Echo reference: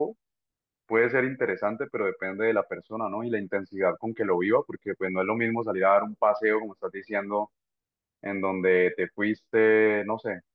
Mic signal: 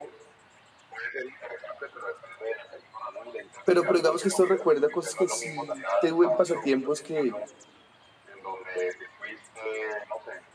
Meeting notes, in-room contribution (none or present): present